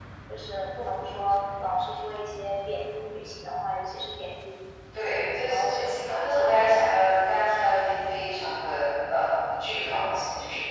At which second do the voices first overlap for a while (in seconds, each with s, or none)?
4.9 s